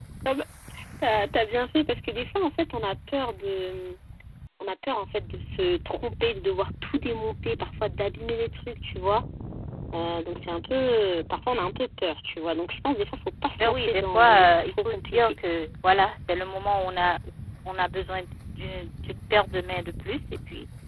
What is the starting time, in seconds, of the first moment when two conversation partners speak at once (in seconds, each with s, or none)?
13.6 s